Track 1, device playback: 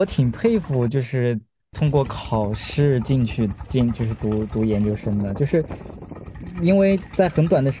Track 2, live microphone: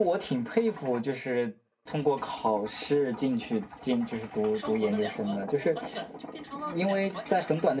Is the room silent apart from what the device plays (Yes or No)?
No